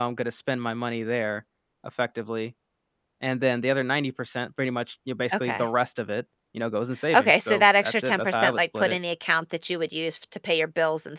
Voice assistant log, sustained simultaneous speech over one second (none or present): present